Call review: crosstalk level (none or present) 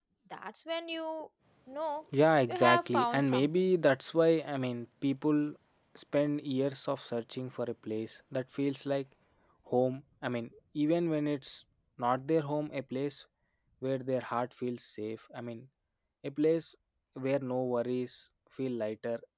present